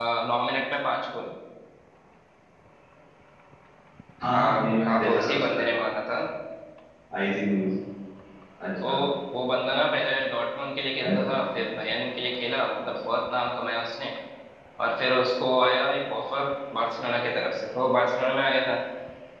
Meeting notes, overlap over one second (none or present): present